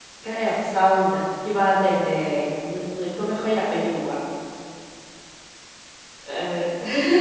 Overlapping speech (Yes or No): No